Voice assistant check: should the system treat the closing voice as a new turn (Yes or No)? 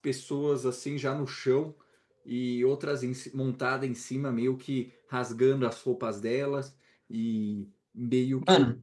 No